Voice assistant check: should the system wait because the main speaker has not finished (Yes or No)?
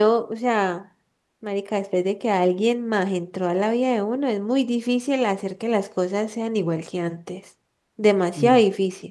Yes